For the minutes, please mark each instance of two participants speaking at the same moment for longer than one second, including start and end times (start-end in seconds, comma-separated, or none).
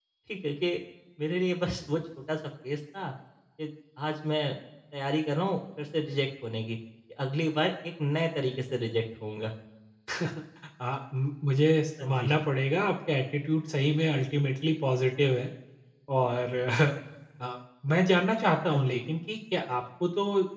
none